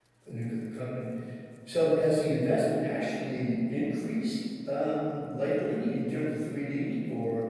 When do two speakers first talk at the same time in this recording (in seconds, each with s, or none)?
none